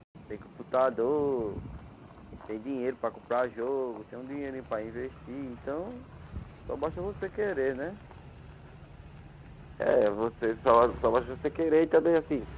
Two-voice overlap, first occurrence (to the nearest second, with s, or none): none